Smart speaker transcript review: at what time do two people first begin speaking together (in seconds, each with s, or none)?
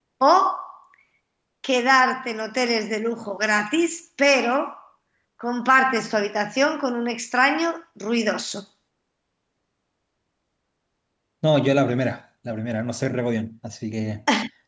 none